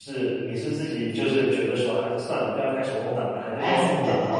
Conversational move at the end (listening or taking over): taking over